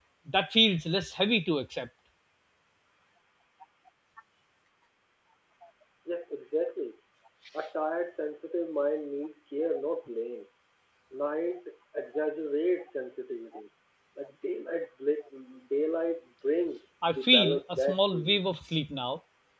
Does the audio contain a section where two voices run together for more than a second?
Yes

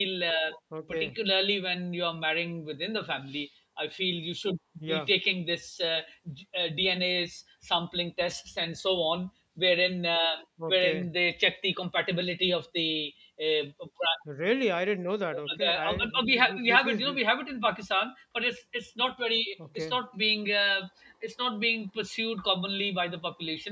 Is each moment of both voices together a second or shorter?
No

